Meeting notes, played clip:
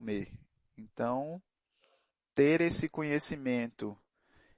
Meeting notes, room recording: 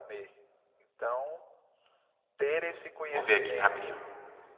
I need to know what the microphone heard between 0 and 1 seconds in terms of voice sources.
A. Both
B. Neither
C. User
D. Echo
D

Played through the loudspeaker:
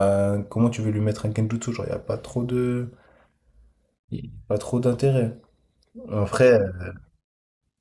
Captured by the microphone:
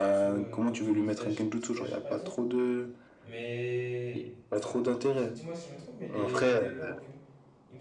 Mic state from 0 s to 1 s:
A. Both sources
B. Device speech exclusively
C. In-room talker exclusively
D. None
A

